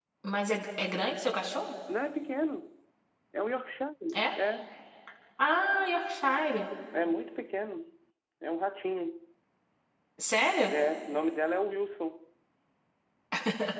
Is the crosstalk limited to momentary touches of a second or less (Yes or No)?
Yes